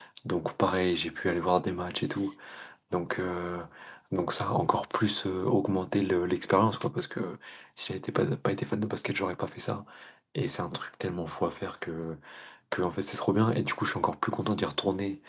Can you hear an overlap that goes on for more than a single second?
No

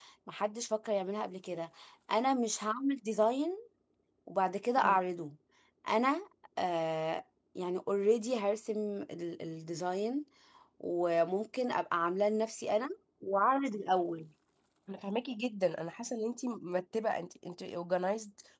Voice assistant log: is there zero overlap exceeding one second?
Yes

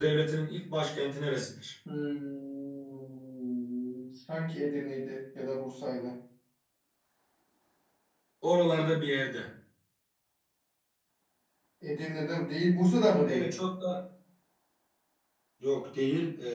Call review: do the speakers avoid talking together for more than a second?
Yes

